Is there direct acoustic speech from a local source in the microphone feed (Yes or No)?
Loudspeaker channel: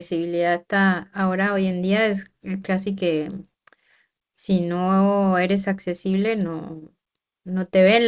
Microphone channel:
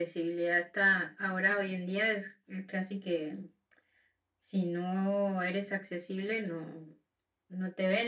No